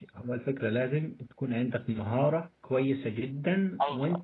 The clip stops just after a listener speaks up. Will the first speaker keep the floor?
Yes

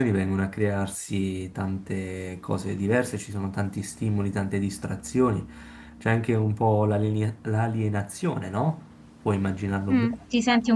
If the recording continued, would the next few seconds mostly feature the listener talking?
Yes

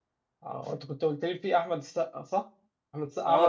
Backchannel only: No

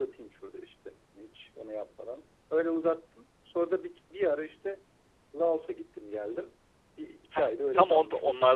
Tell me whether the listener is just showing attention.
No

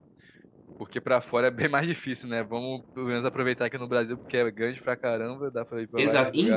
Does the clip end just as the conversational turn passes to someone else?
Yes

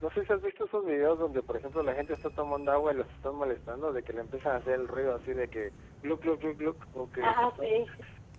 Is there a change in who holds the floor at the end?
No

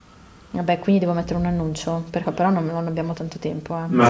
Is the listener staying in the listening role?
No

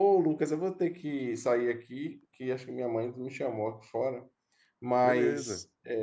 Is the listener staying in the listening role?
Yes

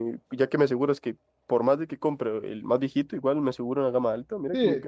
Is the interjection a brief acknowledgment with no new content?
No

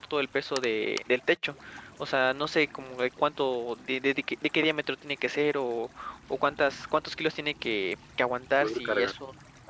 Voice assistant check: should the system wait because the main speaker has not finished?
Yes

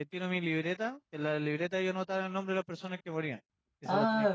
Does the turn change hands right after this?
Yes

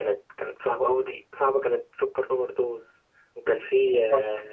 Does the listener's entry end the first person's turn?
No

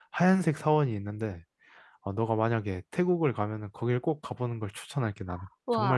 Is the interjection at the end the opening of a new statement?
Yes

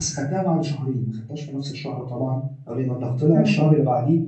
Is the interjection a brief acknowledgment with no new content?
Yes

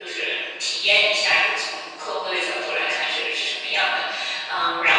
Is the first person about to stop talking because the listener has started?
No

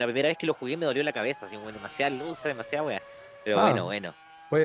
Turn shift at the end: Yes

